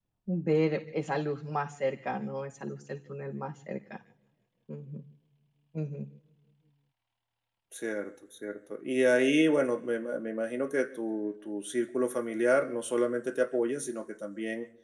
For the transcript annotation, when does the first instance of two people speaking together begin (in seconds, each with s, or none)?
none